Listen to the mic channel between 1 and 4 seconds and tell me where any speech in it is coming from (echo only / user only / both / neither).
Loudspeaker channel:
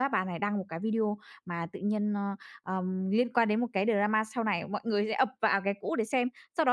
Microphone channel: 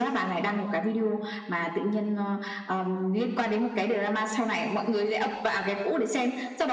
echo only